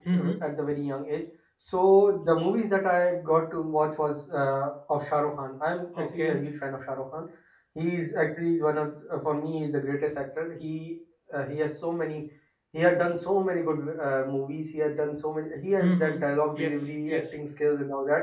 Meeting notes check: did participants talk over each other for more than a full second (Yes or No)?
Yes